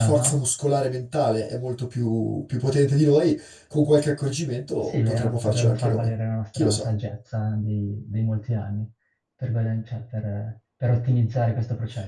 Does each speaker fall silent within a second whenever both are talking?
No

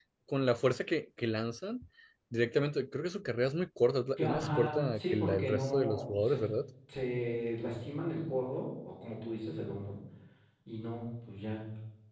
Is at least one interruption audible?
Yes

